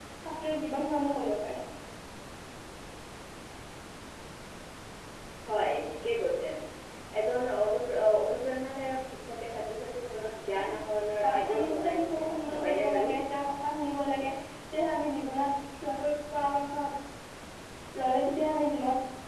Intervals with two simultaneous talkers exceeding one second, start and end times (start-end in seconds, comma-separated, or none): 11.2-13.0